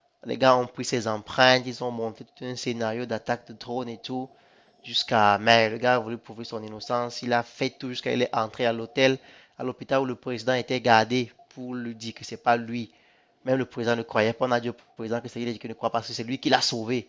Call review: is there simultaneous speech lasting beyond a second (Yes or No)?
No